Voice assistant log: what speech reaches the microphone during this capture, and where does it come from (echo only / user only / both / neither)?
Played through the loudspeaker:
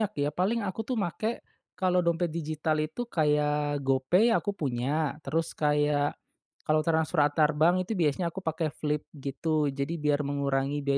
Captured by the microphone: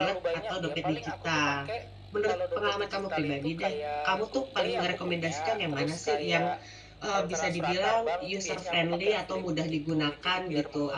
both